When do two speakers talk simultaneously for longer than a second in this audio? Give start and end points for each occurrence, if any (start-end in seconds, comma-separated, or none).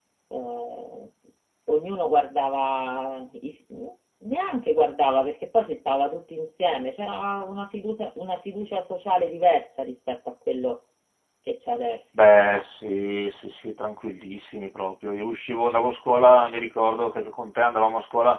none